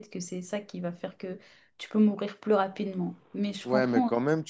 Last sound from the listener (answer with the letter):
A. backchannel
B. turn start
B